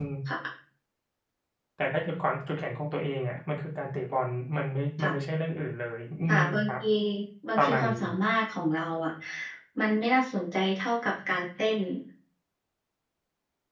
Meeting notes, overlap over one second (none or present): none